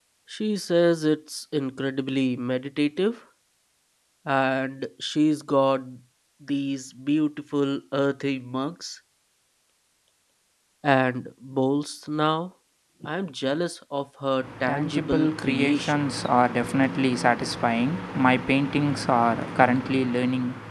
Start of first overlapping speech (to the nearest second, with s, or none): 14 s